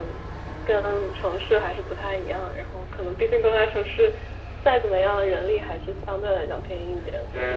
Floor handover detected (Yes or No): Yes